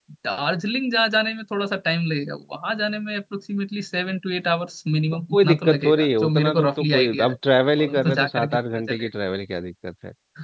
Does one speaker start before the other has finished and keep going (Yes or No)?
Yes